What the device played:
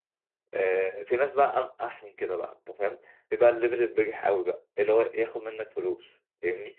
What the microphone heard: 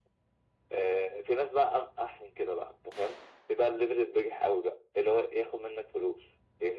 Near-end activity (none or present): none